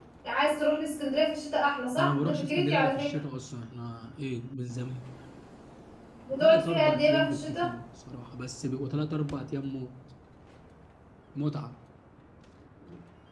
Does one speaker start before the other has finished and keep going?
Yes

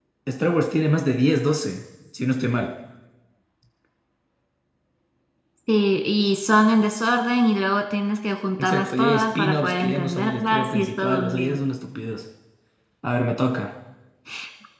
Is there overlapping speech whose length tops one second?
Yes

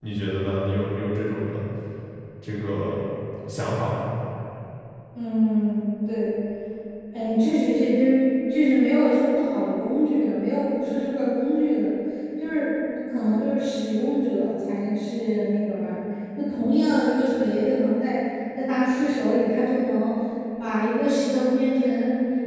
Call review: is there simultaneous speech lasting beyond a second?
No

